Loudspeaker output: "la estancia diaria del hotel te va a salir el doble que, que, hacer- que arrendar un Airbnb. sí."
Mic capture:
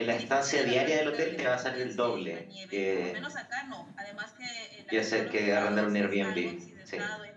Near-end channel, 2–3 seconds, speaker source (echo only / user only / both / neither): both